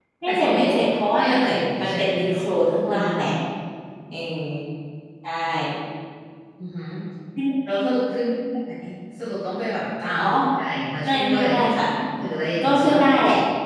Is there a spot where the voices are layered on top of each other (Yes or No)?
Yes